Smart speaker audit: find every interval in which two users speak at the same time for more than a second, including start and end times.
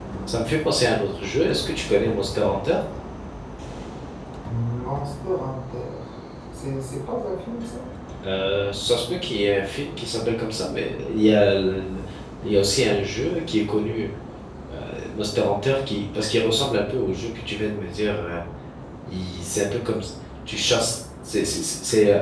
none

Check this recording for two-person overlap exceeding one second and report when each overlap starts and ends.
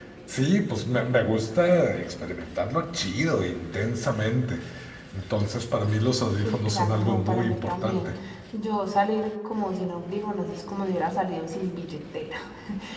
6.4-8.1

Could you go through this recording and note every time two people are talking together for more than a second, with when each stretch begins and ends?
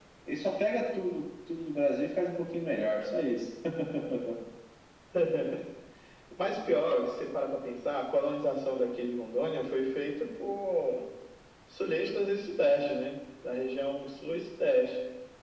none

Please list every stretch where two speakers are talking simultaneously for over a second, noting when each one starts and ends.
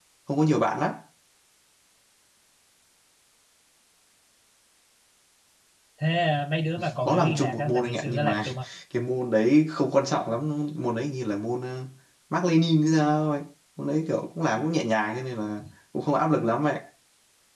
7.0-8.4

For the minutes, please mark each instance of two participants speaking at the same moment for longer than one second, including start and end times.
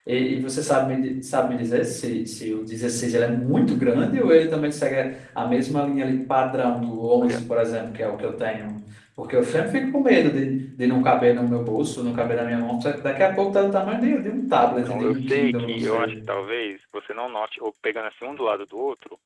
14.8-16.1

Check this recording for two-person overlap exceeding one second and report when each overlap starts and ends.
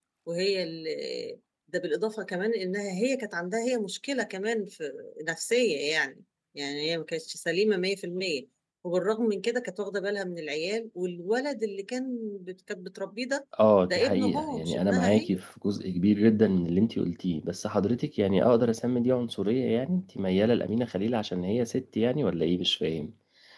13.9-15.4

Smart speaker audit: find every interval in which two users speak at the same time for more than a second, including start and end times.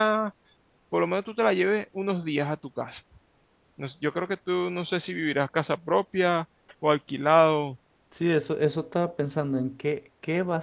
none

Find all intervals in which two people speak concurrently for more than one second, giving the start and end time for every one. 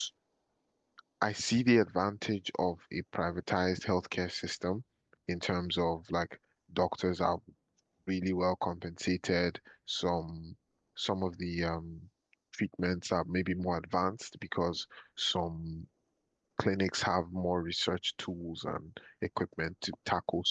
none

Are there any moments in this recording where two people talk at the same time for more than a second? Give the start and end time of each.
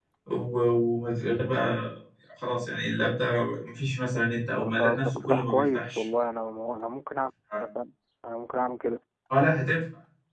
4.5-6.1

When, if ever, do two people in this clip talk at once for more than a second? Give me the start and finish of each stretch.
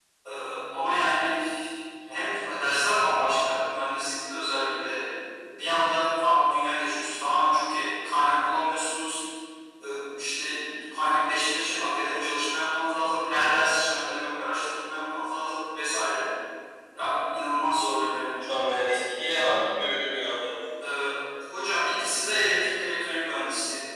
none

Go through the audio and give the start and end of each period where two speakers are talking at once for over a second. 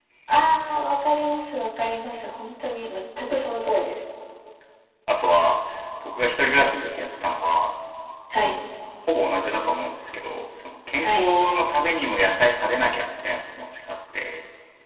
none

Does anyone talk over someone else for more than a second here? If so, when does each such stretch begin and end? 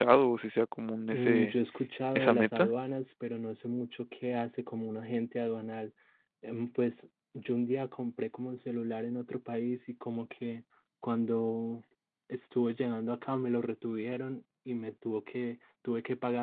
none

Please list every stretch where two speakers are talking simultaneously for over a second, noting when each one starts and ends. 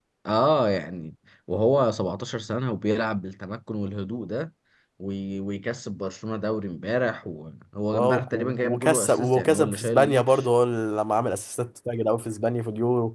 7.9-10.4

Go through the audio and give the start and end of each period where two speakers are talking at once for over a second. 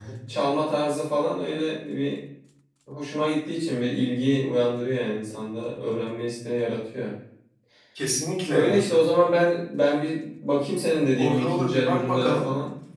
11.2-12.5

